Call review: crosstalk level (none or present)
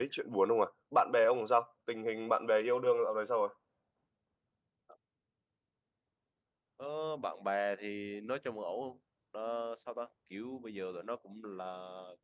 none